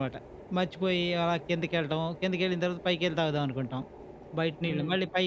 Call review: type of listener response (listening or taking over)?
listening